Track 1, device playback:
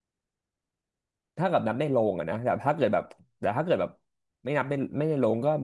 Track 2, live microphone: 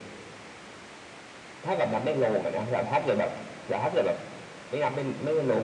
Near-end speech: none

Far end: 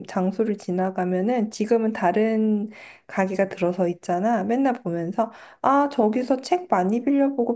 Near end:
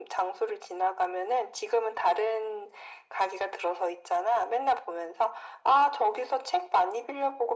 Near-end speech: none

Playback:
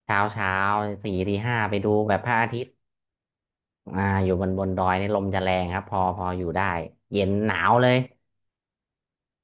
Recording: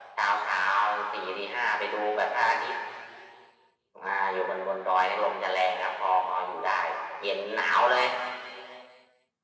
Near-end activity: none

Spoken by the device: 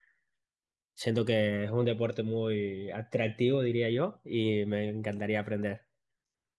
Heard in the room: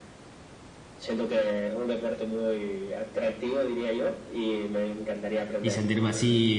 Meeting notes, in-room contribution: present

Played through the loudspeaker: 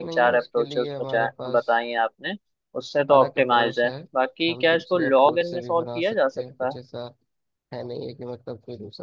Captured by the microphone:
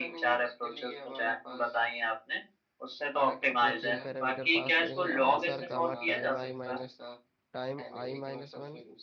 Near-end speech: present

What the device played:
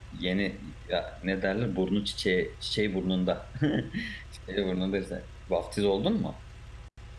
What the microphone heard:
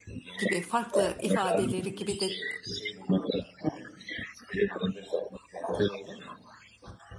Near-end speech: present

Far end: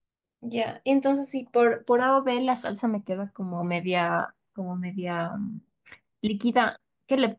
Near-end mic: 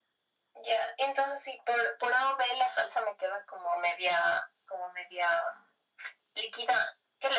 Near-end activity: none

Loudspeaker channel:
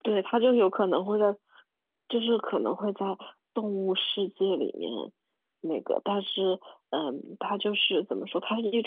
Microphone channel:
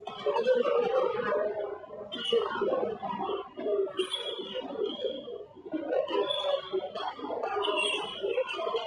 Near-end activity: none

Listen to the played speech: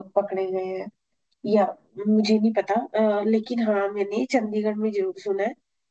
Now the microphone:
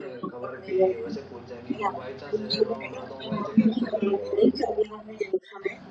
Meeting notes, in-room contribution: present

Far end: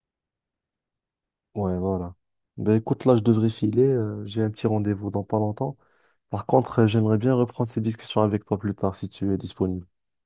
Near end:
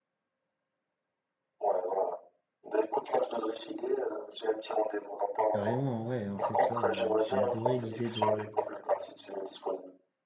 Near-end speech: present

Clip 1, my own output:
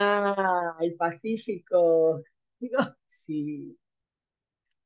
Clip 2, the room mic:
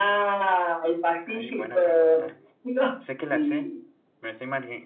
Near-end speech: present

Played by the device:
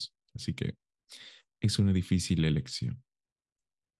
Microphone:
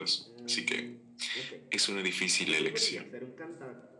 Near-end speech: present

